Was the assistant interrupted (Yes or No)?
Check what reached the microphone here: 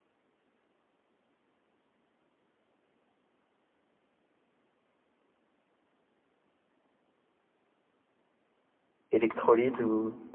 Yes